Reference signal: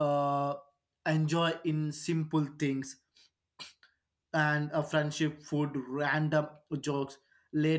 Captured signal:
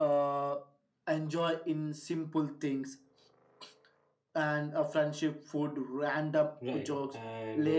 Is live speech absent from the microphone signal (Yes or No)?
No